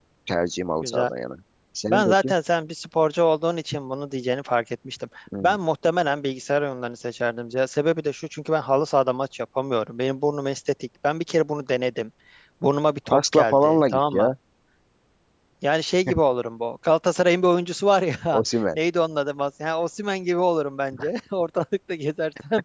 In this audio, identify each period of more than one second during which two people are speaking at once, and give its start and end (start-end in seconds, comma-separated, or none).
13.1-14.3